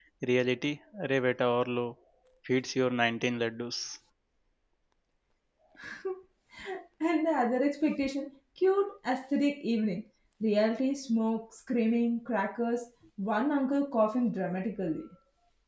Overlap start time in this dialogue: none

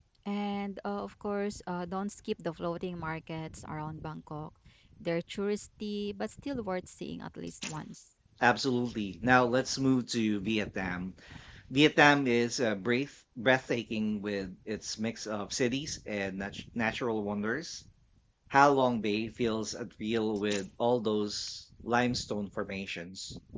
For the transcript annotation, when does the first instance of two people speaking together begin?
none

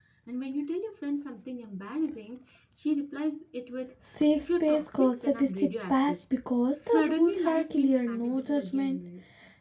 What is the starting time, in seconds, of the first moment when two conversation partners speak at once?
4.4 s

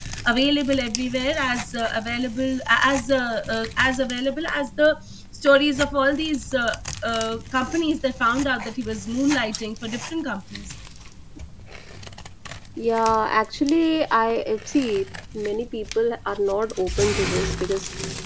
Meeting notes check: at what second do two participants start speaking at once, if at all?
none

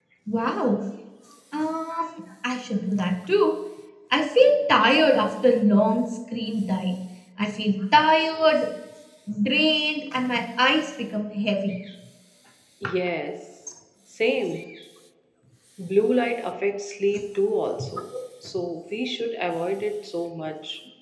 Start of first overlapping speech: none

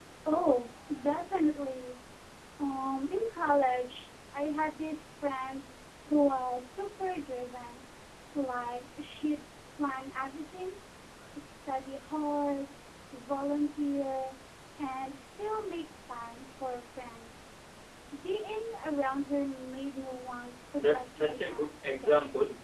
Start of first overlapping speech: 20.8 s

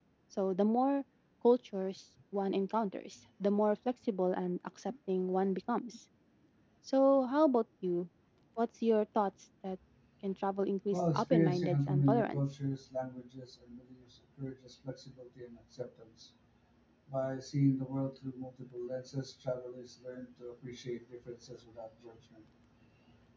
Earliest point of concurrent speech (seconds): 10.9 s

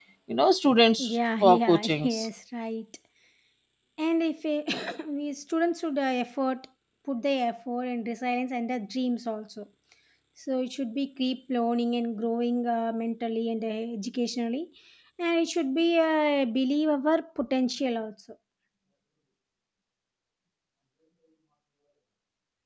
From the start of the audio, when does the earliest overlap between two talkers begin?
1.0 s

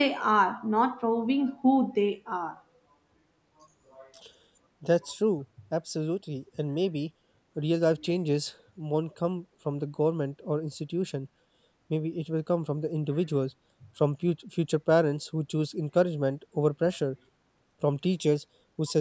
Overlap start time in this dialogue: none

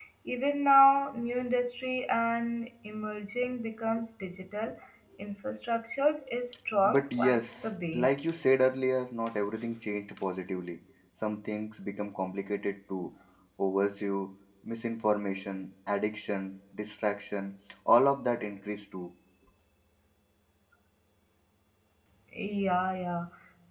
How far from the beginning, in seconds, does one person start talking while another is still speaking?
6.8 s

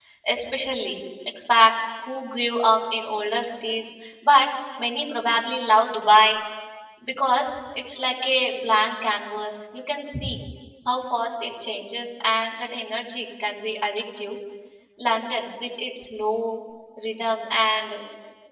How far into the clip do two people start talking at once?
none

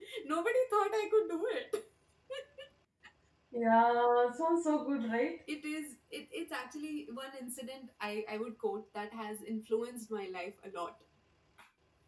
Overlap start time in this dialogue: none

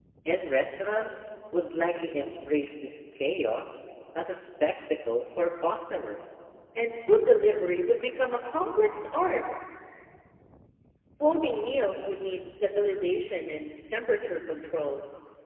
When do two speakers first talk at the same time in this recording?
none

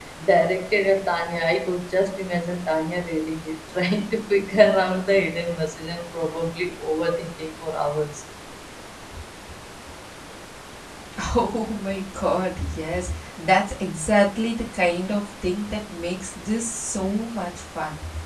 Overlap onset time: none

